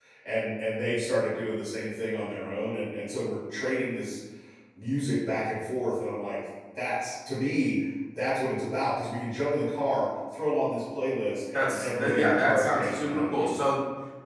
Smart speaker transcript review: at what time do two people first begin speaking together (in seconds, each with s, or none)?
11.5 s